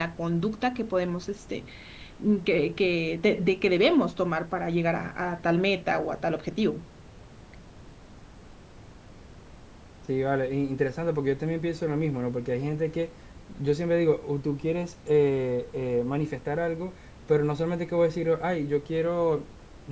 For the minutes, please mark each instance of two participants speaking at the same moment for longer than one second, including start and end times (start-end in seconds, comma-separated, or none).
none